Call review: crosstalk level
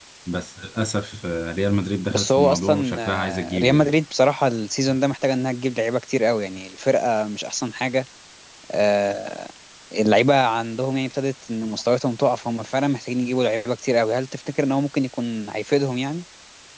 present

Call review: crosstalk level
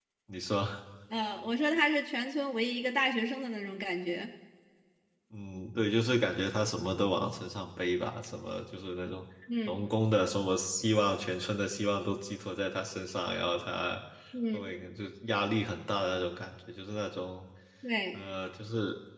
none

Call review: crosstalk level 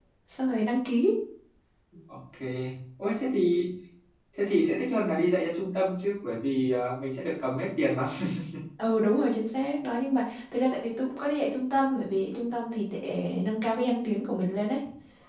none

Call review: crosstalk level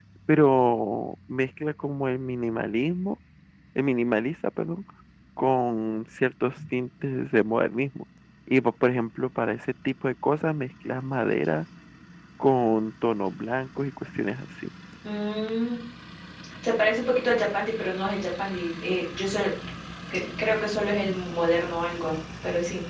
none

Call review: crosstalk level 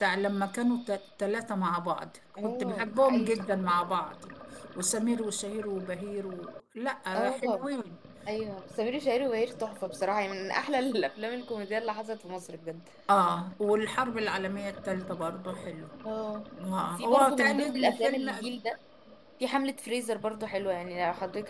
present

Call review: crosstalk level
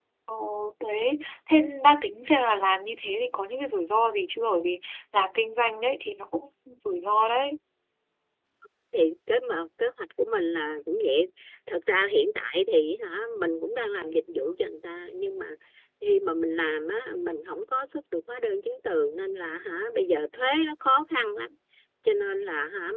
none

